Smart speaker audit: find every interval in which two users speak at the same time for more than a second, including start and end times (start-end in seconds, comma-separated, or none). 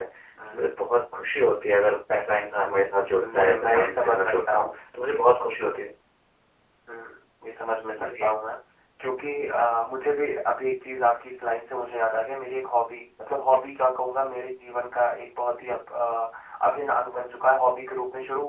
3.2-4.7